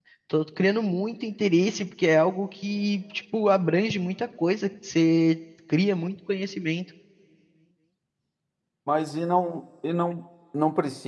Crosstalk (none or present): none